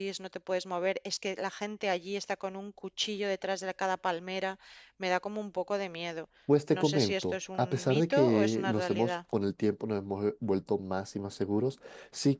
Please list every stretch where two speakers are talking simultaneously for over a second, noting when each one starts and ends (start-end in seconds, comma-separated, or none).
6.7-9.2